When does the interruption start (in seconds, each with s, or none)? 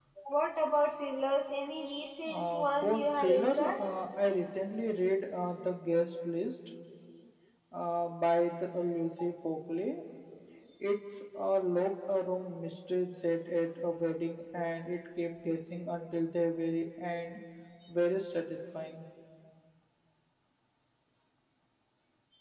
2.3 s